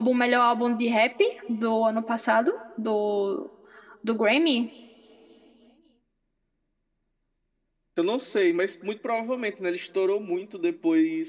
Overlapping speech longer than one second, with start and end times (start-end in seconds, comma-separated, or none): none